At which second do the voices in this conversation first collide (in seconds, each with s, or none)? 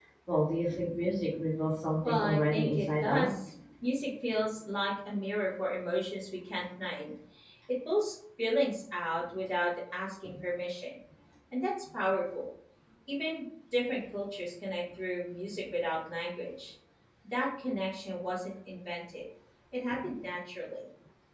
2.0 s